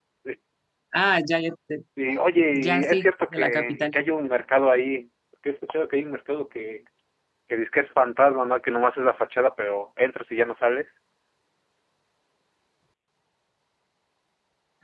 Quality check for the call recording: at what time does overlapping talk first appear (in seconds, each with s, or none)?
2.5 s